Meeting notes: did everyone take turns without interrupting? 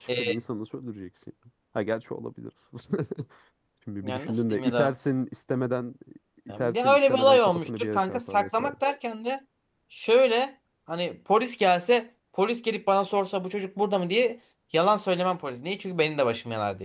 No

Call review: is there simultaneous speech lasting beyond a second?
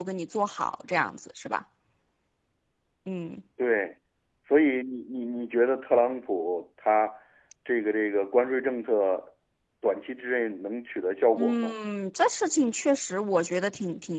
No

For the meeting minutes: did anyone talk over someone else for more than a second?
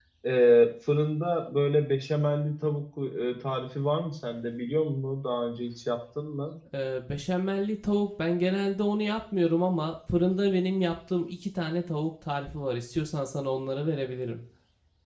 No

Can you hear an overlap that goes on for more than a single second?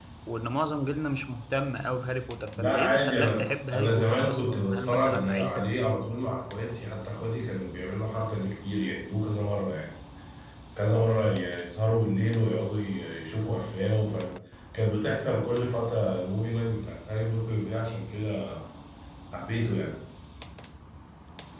Yes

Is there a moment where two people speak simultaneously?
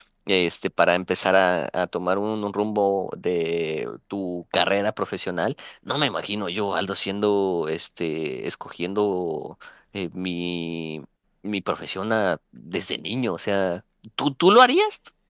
No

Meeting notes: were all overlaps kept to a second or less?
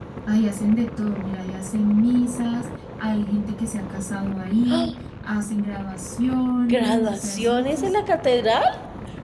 No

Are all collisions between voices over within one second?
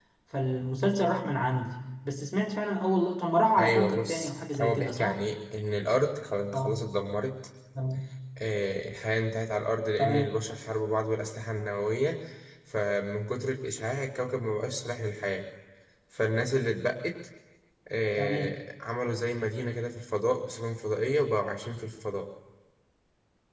No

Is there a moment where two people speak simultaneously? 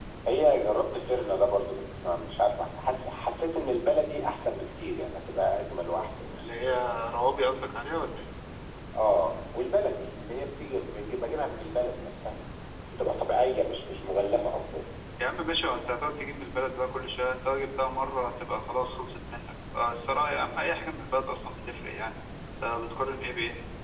No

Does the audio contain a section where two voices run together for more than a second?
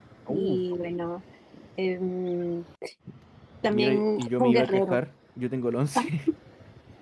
Yes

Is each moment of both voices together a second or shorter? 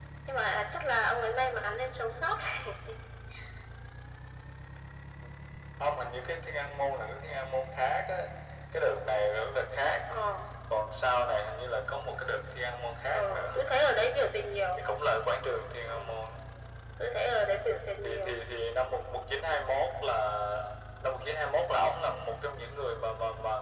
Yes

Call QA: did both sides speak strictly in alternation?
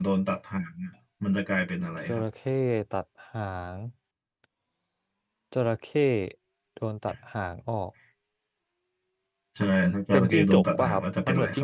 No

